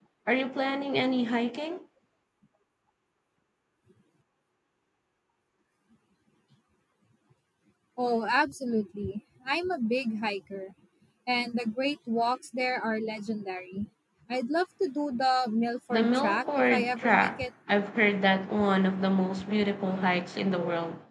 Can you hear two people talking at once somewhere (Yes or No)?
Yes